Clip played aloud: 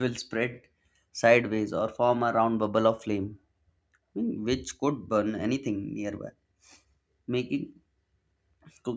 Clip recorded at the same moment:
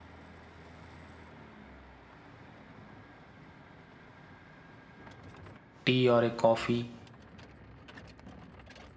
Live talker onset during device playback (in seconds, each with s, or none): 5.9 s